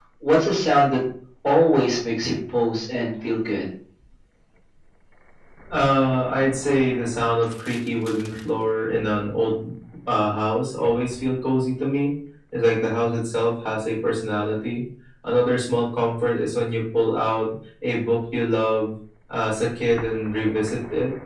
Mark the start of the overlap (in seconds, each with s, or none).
none